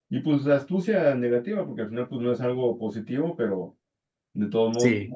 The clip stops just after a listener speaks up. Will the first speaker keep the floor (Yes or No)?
Yes